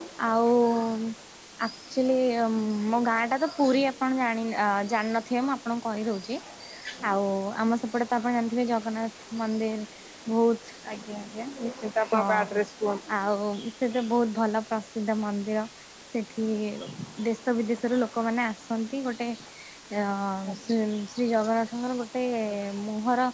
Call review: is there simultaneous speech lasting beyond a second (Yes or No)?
No